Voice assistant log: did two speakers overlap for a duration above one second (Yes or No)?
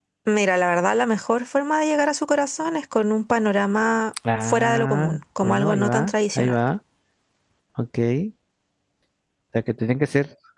Yes